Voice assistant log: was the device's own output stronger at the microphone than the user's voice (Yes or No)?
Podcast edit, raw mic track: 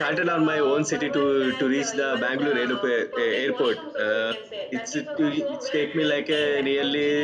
No